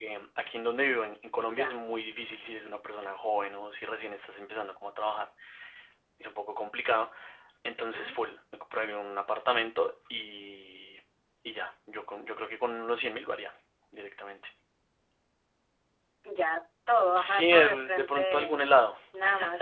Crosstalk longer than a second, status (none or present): present